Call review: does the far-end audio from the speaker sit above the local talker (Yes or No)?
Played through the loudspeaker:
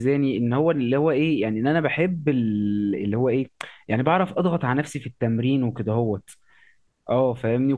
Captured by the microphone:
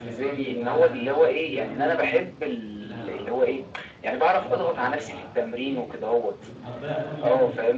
Yes